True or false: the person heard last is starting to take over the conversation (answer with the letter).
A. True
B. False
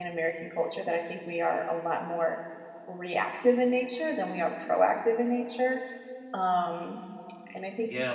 A